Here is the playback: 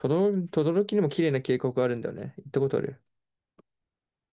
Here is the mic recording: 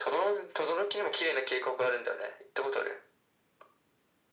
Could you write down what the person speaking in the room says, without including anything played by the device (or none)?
none